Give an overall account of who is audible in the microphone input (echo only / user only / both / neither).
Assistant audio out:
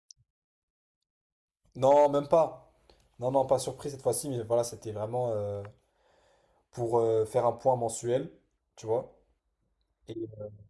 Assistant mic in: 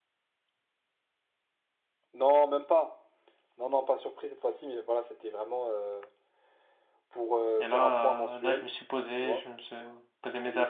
both